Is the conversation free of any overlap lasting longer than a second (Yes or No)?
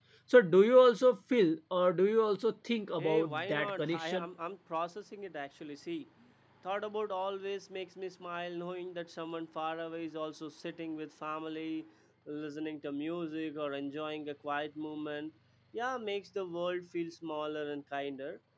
No